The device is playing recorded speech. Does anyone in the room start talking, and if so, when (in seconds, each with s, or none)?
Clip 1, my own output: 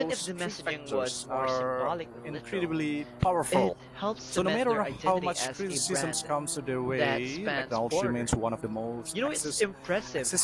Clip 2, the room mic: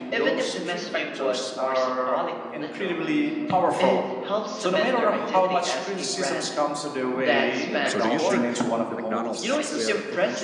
7.8 s